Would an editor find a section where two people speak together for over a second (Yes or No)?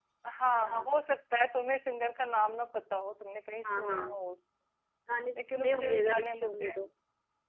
Yes